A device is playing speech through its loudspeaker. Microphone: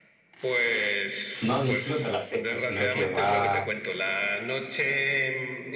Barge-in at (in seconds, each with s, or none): 1.4 s